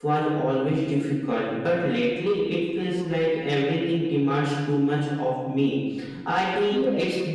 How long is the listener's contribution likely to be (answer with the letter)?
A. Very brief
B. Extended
A